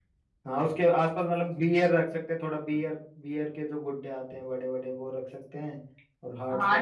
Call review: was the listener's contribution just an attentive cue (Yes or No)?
No